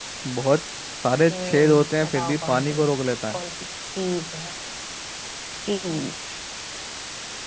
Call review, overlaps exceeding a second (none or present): present